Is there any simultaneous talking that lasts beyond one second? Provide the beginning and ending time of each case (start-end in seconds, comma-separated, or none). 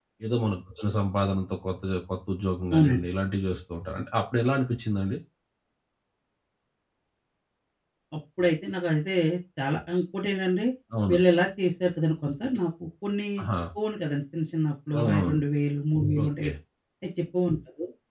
none